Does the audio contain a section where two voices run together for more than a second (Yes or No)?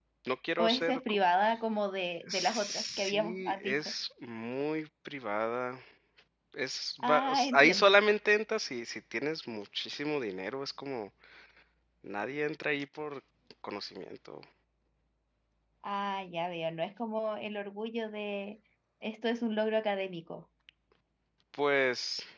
Yes